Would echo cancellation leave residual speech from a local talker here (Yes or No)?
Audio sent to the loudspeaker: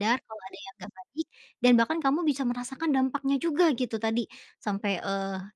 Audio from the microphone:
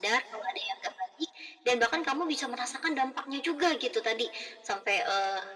No